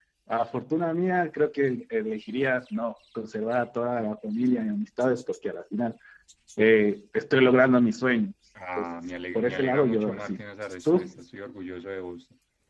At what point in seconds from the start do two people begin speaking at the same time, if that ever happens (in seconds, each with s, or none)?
8.8 s